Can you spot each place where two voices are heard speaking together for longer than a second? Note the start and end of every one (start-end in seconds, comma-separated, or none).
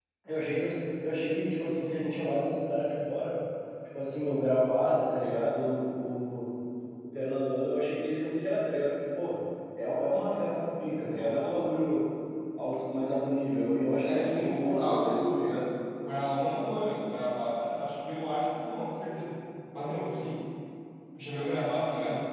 14.0-15.6